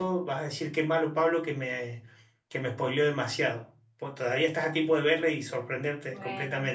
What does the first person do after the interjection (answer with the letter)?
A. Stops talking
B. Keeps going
A